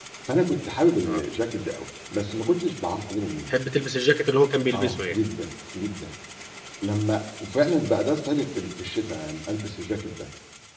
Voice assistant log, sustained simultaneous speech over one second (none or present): none